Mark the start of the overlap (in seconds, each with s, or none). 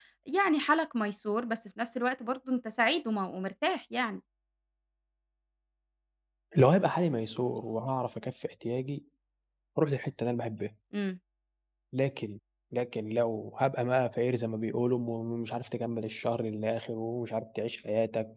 none